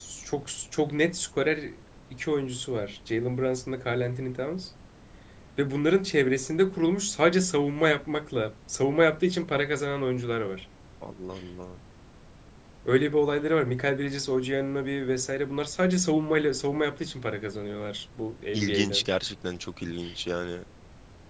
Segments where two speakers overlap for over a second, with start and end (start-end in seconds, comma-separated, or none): none